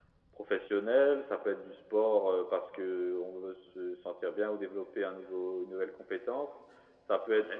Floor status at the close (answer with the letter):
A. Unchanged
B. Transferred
A